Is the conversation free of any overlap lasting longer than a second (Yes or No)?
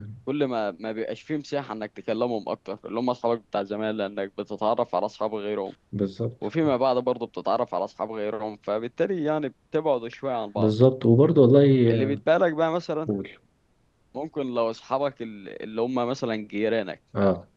Yes